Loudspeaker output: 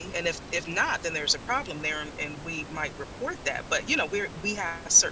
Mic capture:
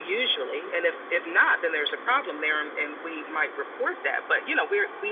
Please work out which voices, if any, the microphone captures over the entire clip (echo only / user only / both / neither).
echo only